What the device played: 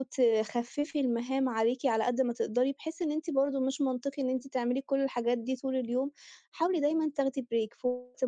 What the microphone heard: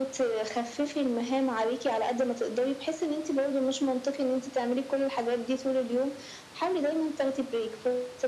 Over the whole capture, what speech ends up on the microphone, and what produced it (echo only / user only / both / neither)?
echo only